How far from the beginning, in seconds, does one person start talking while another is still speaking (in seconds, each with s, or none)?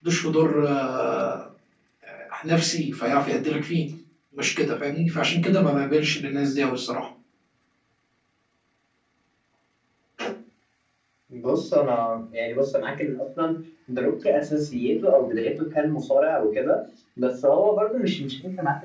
none